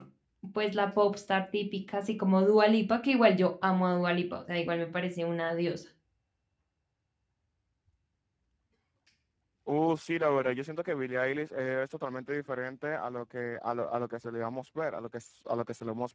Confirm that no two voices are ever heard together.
Yes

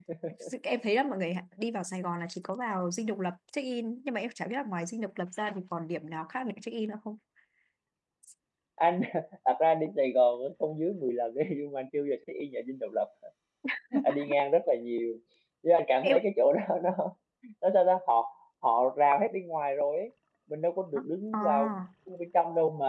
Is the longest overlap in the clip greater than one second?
No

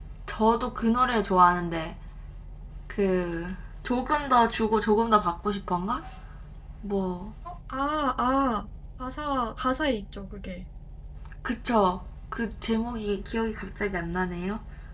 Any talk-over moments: No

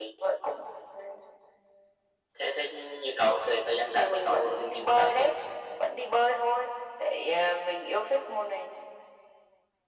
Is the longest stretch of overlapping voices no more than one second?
No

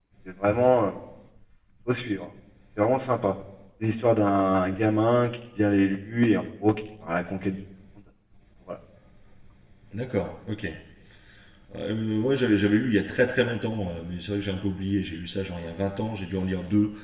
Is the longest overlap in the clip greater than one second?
No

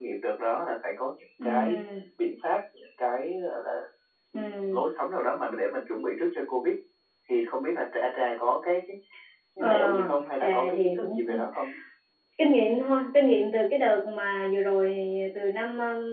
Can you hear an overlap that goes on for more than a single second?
Yes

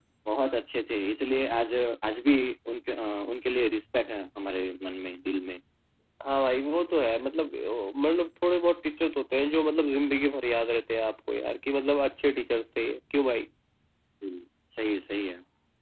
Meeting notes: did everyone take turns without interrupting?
Yes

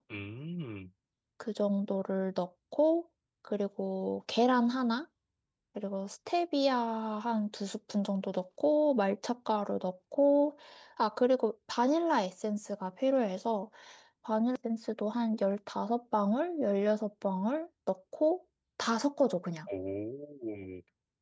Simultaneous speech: No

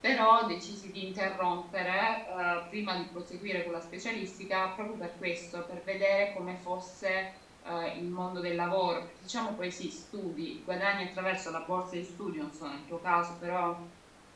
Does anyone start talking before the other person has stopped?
No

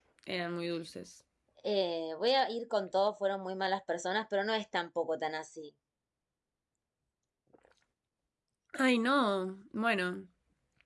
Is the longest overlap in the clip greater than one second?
No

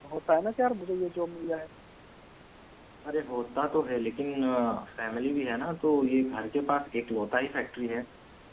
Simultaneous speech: No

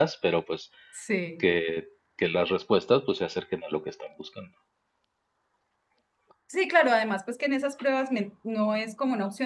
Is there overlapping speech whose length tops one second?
No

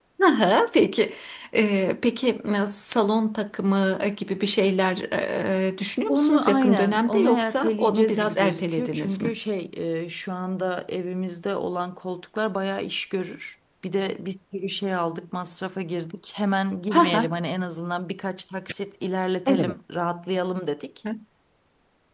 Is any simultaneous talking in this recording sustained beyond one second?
Yes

